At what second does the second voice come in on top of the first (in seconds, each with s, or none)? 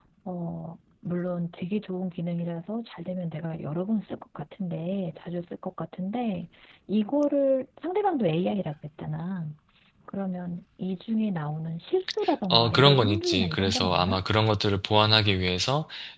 12.5 s